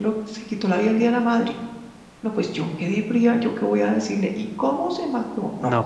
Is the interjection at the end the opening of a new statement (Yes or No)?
Yes